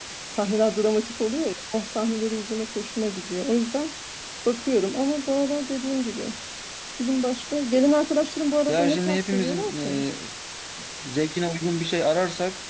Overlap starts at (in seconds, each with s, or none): 8.7 s